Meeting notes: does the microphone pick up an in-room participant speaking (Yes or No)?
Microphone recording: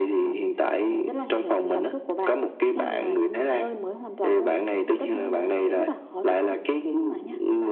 No